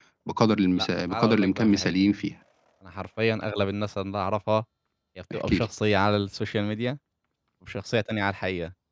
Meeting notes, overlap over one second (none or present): present